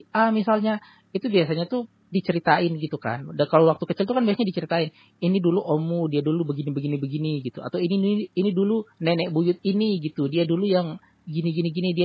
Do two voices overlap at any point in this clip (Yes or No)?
No